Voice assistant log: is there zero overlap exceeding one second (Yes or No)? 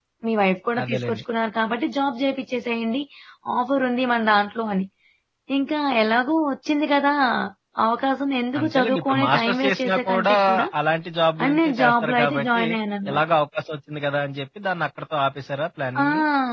No